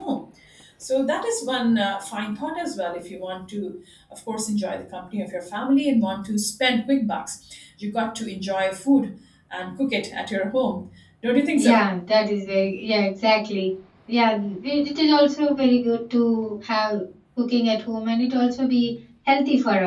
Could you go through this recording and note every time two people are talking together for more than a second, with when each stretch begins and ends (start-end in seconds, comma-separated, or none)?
none